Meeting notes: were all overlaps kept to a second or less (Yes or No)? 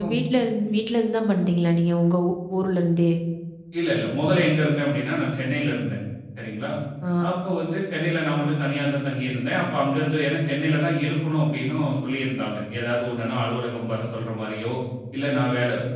Yes